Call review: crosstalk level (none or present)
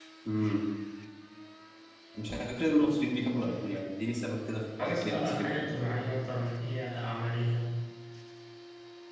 present